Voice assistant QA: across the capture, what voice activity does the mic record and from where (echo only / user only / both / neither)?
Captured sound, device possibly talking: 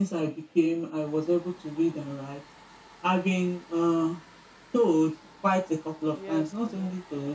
both